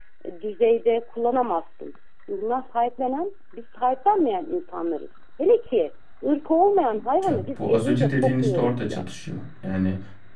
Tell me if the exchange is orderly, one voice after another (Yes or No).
No